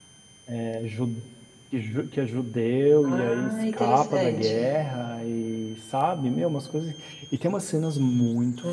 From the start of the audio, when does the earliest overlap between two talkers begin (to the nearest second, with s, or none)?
3 s